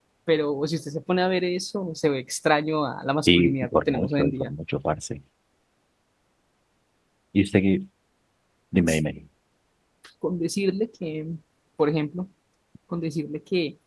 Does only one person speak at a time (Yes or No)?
No